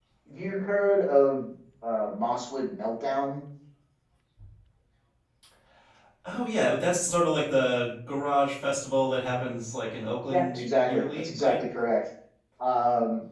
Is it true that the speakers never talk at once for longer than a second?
No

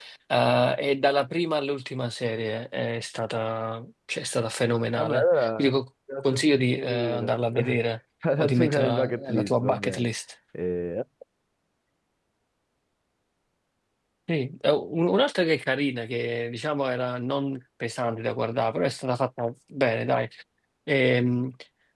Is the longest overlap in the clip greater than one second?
Yes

